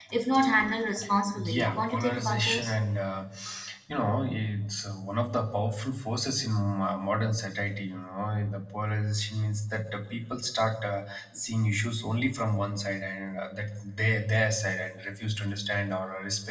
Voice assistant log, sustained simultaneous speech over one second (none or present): present